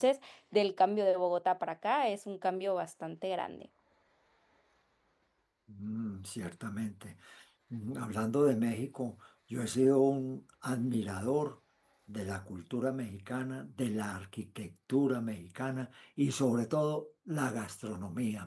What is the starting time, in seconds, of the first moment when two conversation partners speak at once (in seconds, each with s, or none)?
none